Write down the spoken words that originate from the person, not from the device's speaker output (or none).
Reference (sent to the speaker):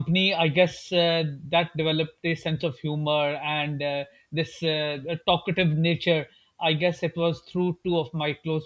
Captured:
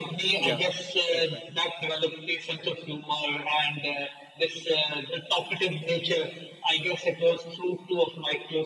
Yeah. That's right.